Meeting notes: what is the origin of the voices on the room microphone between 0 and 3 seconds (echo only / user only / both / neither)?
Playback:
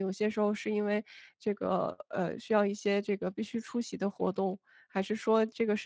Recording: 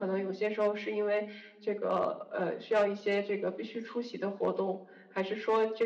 echo only